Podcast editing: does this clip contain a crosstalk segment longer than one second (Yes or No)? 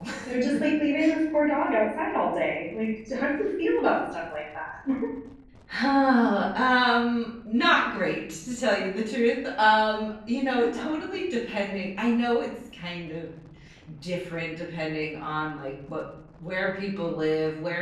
No